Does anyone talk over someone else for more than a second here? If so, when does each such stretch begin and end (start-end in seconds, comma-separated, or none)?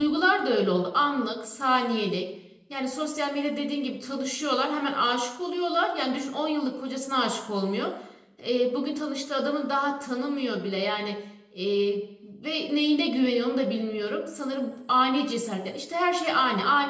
none